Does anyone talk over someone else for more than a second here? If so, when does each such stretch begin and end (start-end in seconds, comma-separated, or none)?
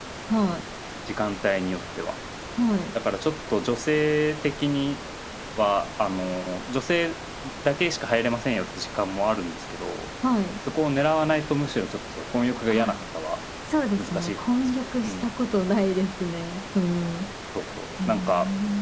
14.0-15.3